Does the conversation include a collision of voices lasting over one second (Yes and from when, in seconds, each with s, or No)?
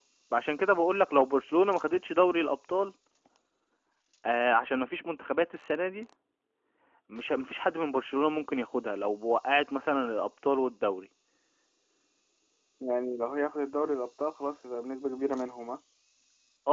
No